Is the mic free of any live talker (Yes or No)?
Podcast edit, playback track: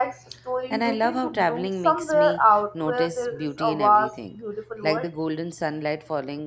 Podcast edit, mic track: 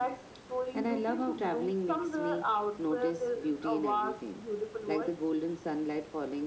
Yes